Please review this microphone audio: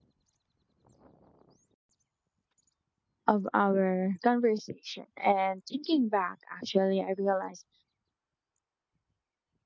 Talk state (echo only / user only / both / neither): user only